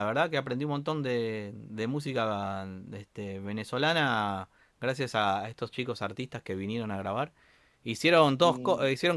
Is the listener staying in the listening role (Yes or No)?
Yes